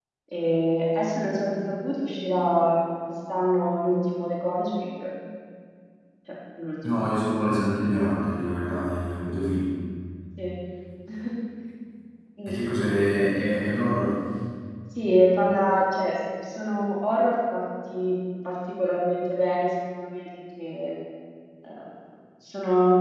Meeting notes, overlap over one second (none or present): none